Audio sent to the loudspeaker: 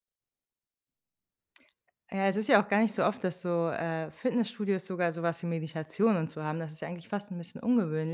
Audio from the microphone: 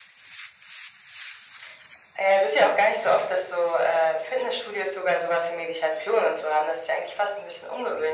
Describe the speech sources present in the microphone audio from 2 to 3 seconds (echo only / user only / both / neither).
echo only